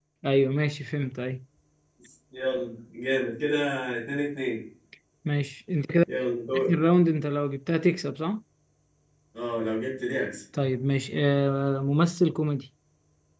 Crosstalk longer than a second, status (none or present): none